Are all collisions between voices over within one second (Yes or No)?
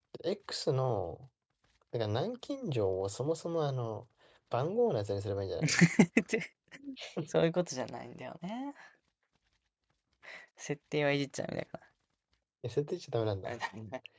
Yes